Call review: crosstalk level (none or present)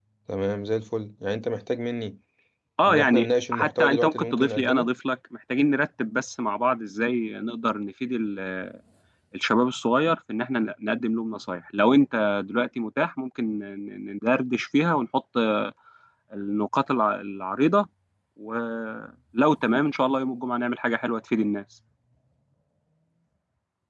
present